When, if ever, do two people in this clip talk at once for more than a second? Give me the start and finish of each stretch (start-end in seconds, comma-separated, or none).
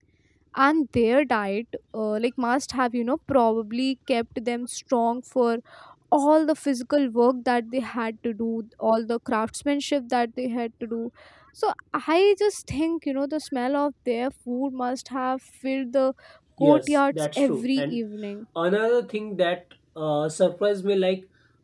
16.6-18.0